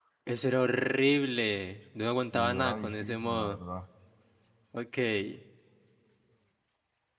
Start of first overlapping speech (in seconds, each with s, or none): 2.3 s